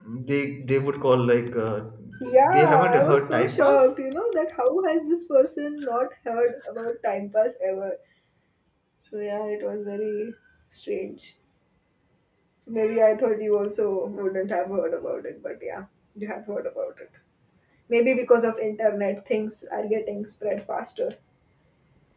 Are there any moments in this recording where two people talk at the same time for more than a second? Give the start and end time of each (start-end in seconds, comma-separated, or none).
2.5-3.9